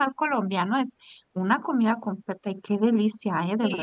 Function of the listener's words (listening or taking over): taking over